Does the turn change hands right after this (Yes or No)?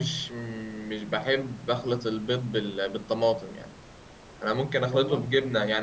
No